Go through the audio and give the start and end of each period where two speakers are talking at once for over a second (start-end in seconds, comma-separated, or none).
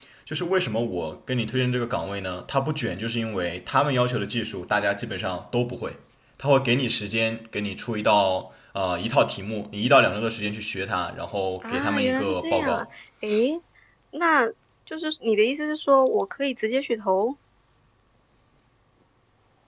11.6-12.8